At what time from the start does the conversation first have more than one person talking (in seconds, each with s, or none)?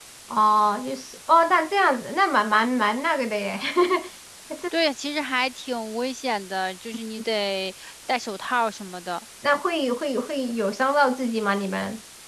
none